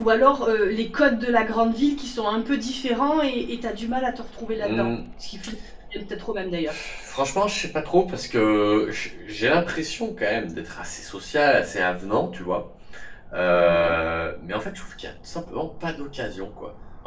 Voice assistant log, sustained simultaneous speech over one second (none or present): none